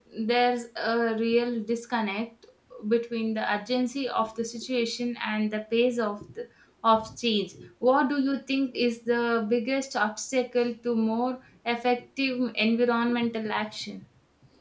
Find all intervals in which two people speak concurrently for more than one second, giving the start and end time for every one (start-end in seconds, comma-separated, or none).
none